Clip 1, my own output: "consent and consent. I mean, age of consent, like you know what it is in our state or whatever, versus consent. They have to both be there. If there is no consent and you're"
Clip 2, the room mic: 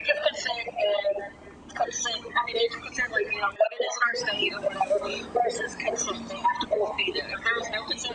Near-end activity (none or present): none